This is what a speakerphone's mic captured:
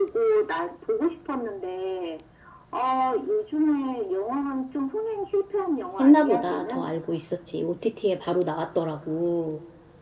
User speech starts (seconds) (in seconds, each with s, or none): 6.0 s